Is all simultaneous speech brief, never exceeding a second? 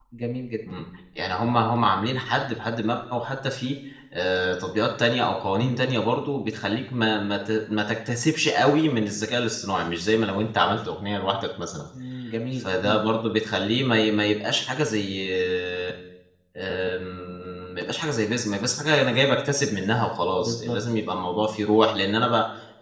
Yes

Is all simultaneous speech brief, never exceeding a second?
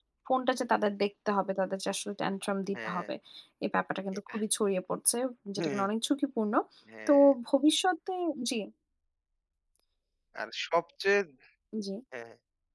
Yes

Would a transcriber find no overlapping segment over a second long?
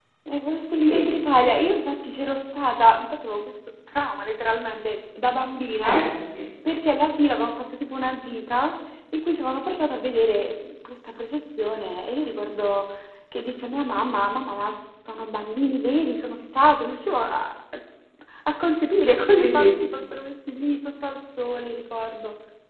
Yes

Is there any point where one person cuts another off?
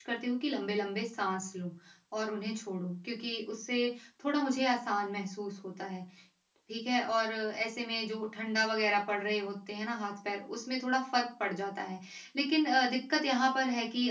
No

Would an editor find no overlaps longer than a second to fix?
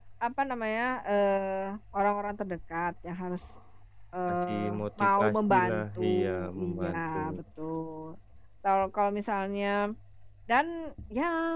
No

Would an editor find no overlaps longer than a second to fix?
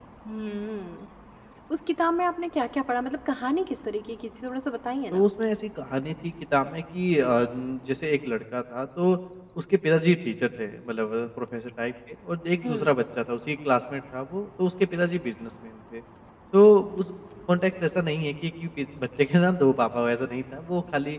Yes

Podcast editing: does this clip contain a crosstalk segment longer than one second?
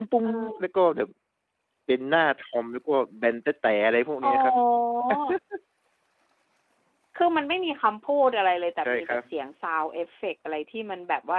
No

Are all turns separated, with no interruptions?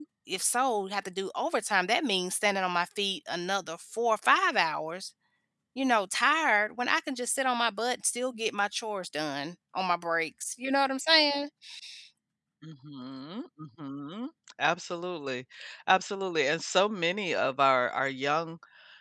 Yes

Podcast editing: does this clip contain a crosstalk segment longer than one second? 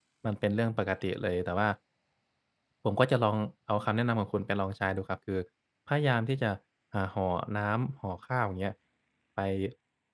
No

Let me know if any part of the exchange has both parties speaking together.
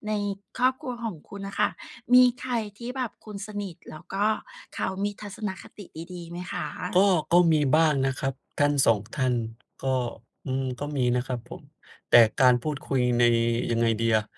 No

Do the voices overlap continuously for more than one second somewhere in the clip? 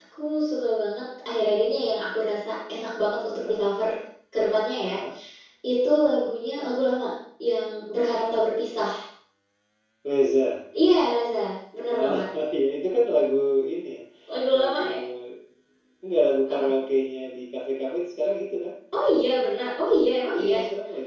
No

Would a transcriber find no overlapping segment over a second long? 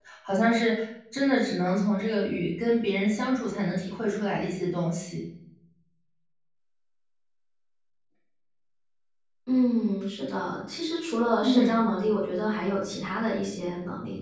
Yes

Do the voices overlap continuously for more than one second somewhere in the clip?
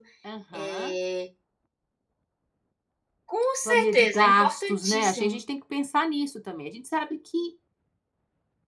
Yes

